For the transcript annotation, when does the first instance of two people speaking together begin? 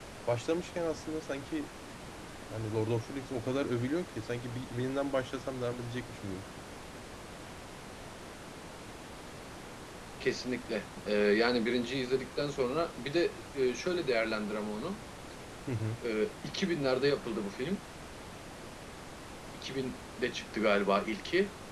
none

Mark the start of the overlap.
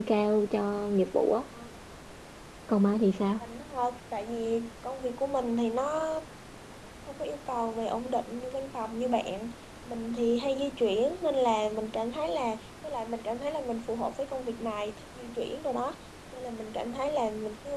none

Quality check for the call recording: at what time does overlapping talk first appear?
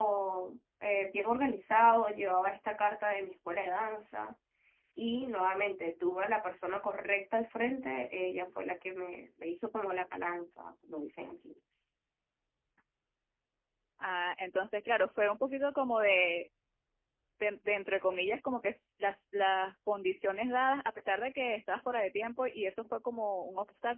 none

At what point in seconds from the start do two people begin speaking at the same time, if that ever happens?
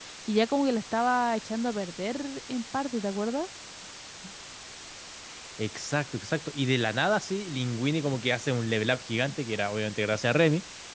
none

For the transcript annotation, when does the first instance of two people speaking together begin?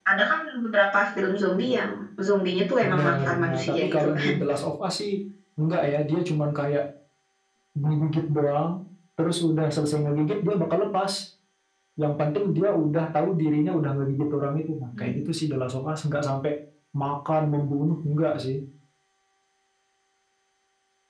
2.8 s

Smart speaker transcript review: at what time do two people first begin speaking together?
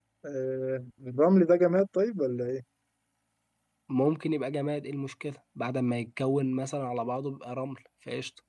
none

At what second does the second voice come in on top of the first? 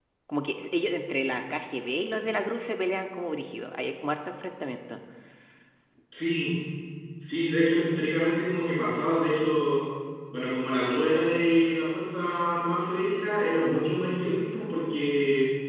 none

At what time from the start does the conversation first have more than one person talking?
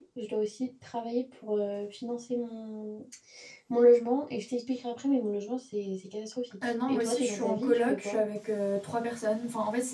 6.9 s

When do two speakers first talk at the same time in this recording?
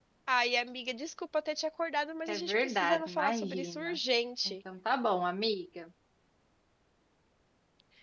2.3 s

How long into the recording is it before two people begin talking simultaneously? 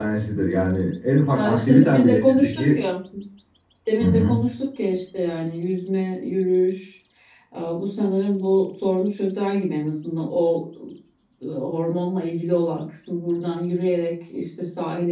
1.3 s

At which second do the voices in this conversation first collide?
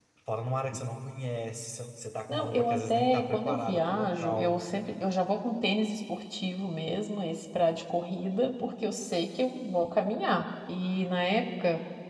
2.3 s

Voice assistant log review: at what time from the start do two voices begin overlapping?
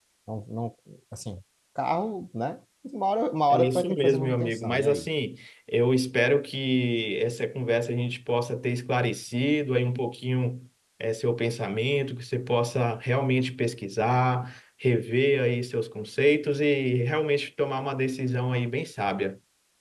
3.5 s

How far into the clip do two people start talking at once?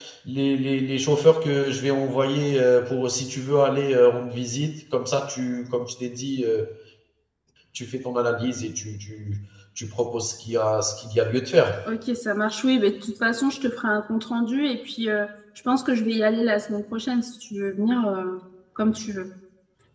none

